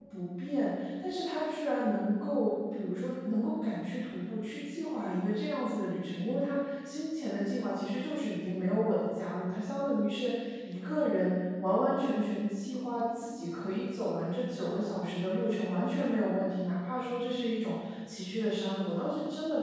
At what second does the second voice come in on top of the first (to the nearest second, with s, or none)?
none